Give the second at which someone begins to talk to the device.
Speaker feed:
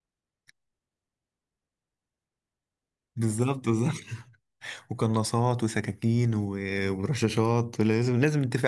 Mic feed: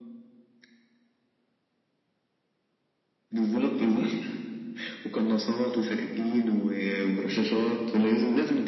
none

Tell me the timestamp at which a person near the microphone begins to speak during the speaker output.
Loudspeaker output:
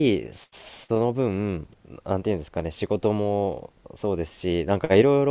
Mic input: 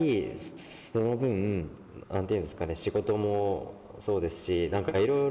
none

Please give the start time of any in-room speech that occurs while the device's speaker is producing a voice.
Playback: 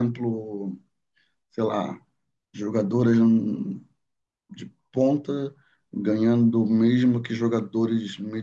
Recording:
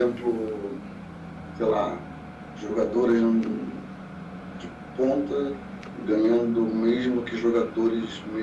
none

